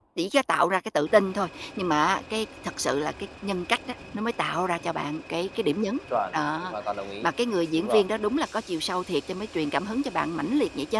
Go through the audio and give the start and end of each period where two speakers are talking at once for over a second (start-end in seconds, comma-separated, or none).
none